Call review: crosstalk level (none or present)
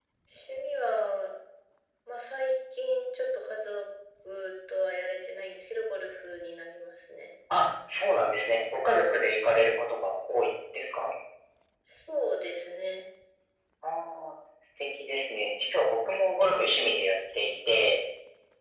none